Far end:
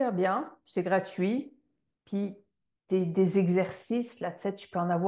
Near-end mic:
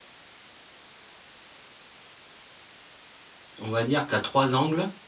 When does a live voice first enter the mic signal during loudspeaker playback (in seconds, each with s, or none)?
3.6 s